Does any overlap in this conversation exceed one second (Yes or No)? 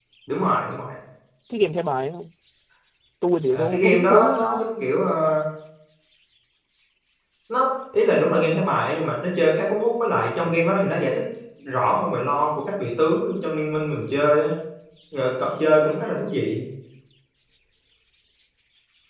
Yes